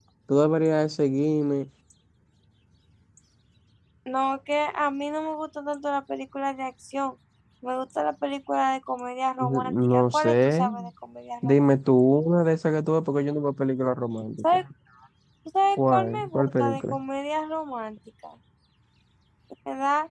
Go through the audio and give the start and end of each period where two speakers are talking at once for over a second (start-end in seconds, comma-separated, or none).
9.4-10.7, 15.8-17.0